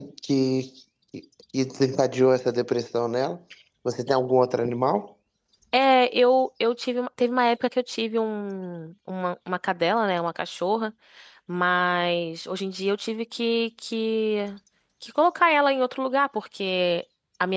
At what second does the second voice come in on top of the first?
none

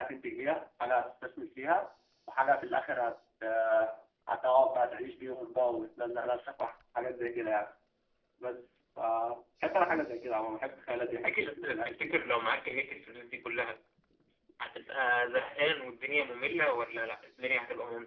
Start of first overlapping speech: 10.9 s

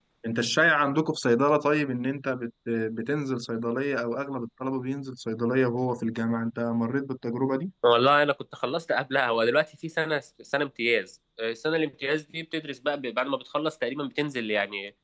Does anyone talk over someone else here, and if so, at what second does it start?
none

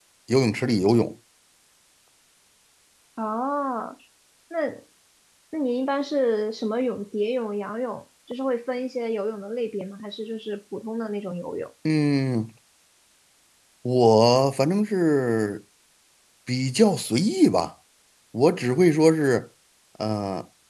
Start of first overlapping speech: none

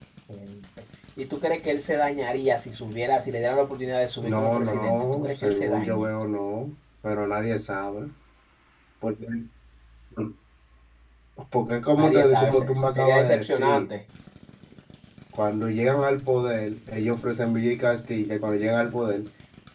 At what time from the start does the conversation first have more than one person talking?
4.2 s

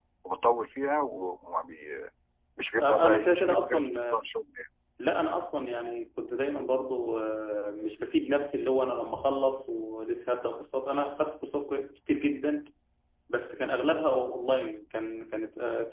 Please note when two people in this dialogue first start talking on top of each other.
2.8 s

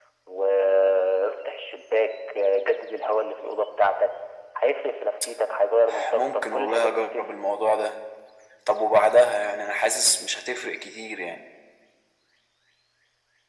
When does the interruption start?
6.1 s

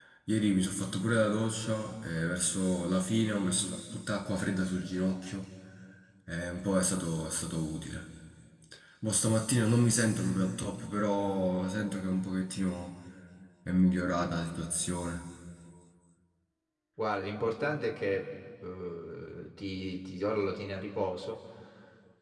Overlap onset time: none

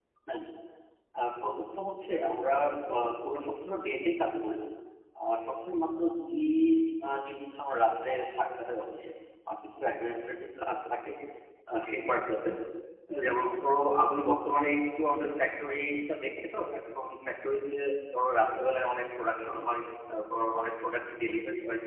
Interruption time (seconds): none

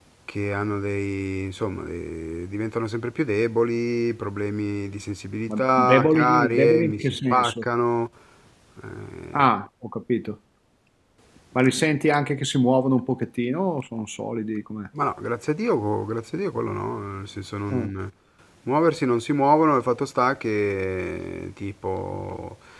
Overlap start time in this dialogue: 5.5 s

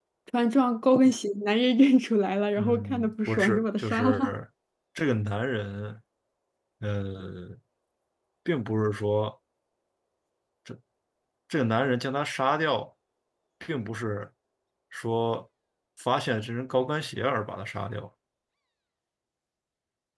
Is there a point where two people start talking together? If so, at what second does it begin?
2.6 s

